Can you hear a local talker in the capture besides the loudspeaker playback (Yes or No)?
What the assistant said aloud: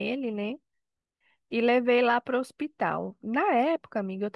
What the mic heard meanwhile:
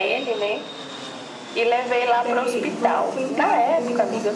Yes